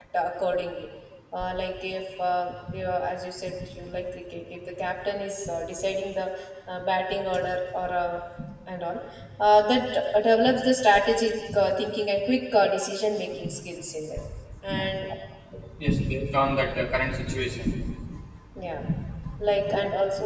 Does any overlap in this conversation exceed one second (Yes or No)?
No